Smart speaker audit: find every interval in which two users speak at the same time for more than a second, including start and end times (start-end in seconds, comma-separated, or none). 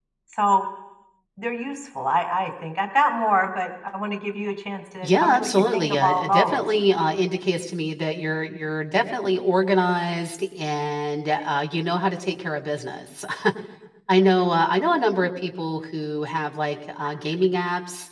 5.0-6.7